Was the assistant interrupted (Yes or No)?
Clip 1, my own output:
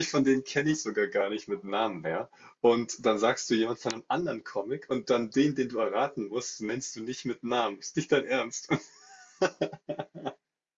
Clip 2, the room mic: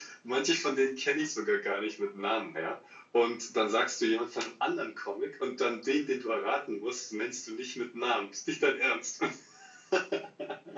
No